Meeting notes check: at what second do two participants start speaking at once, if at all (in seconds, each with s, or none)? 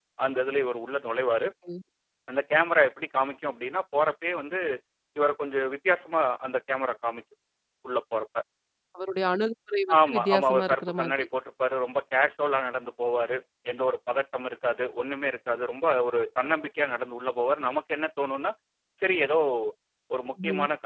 9.9 s